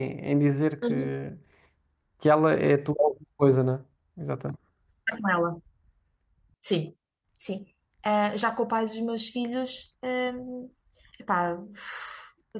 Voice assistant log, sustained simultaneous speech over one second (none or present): none